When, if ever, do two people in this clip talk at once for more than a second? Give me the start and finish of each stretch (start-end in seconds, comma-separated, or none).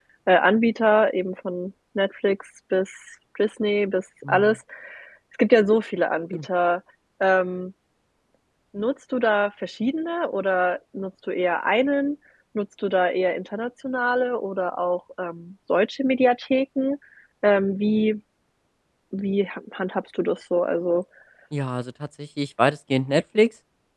none